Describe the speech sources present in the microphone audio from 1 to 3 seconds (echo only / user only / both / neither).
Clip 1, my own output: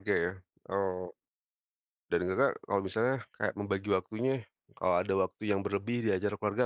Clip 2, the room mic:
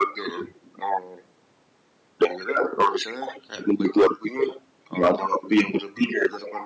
echo only